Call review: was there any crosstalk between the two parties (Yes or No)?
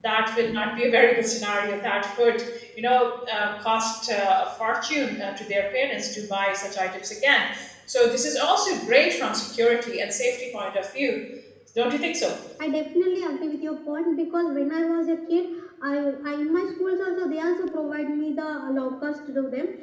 No